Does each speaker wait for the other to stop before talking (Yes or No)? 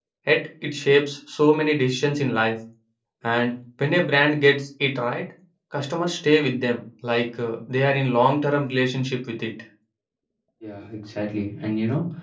Yes